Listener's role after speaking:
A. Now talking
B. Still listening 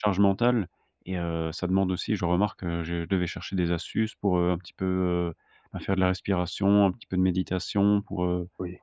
B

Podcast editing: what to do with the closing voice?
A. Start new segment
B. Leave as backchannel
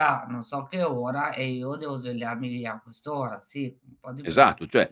A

